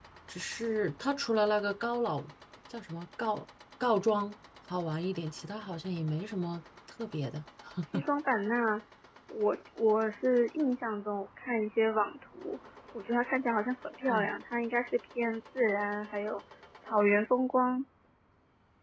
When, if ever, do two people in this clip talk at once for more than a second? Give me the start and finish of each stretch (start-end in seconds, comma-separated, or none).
none